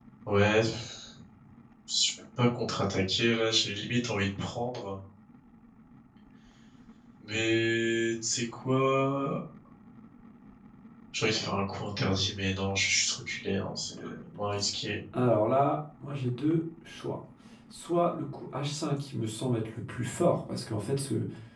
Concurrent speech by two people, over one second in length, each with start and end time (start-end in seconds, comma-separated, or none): none